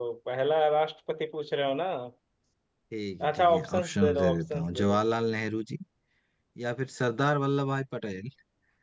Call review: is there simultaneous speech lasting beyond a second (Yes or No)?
Yes